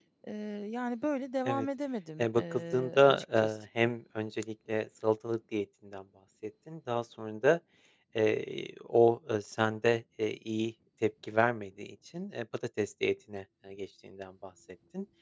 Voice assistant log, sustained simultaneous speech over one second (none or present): present